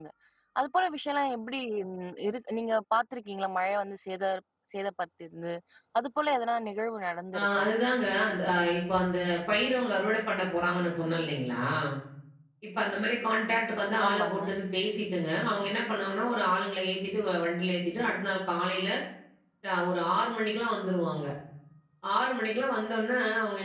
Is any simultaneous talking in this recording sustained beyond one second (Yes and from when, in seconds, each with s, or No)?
No